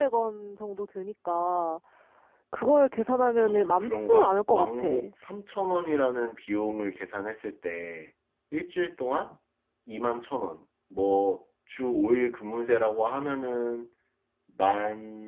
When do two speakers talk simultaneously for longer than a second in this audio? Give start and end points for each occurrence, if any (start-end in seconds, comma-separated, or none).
3.4-4.9